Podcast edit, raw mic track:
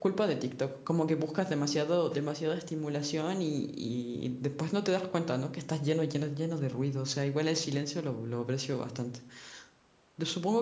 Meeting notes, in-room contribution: present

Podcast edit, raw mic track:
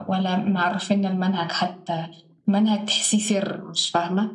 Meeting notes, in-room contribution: none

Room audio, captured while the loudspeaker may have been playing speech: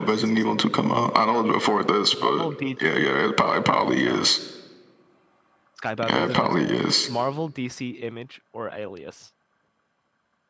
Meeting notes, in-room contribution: present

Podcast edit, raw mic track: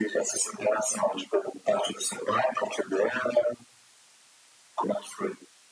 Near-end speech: none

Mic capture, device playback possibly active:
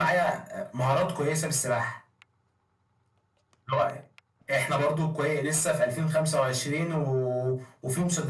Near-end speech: none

